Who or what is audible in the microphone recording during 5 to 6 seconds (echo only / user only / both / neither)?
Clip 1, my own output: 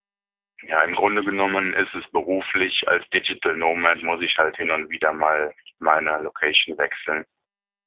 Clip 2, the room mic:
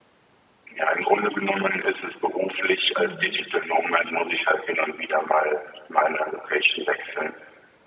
echo only